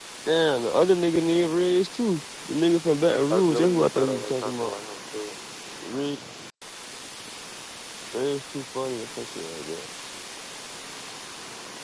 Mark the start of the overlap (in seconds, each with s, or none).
3.3 s